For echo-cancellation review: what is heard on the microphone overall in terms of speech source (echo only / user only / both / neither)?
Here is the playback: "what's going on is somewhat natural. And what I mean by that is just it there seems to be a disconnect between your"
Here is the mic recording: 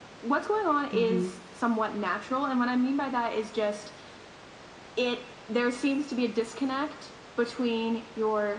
both